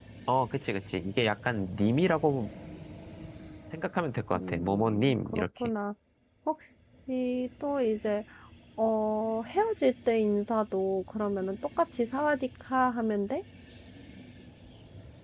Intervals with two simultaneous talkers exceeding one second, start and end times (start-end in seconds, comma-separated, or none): 4.4-5.7